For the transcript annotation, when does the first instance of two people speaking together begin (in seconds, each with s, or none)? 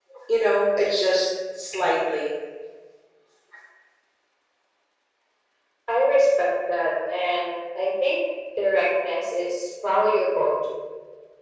none